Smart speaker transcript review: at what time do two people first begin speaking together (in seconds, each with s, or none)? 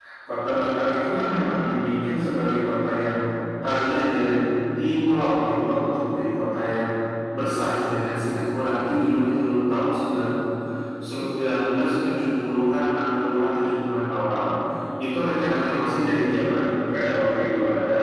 none